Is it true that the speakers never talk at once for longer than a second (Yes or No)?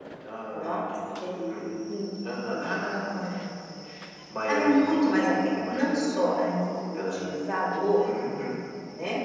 No